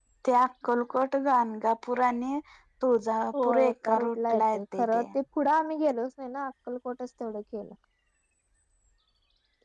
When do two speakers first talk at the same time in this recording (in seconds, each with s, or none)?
3.4 s